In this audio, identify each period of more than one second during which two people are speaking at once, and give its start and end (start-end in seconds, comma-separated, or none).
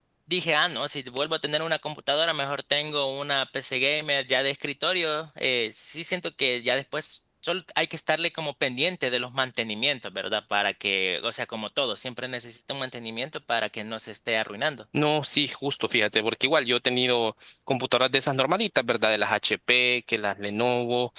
none